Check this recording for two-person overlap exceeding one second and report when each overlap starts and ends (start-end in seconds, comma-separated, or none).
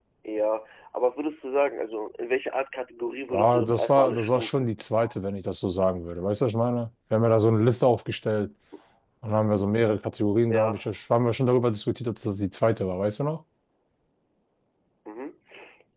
3.3-4.7